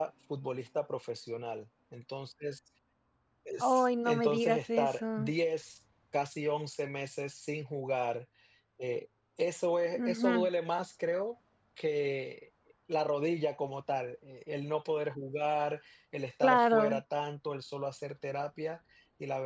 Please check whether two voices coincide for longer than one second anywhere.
Yes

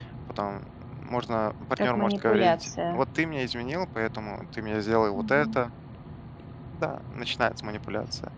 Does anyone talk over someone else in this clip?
Yes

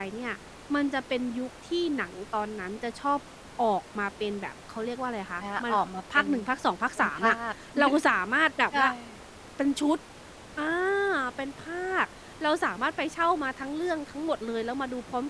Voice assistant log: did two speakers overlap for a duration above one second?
No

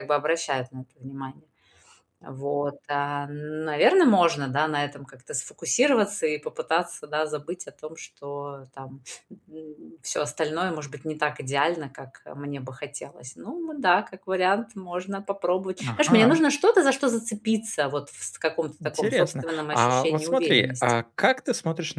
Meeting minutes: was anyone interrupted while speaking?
Yes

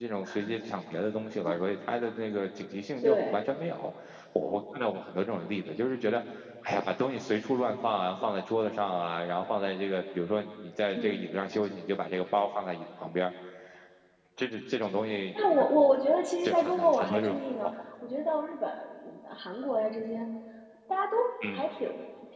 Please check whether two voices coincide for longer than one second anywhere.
Yes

